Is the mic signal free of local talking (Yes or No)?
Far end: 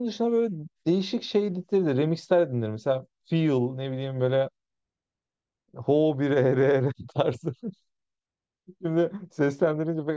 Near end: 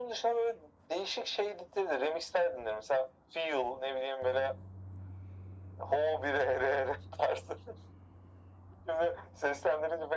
Yes